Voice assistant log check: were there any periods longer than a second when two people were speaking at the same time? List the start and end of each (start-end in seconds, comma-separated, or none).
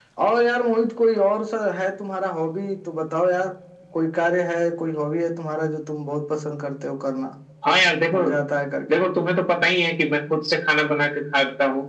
none